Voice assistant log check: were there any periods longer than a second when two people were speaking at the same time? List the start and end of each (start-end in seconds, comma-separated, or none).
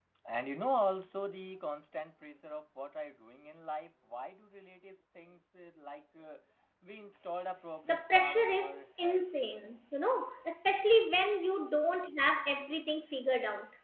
7.8-9.2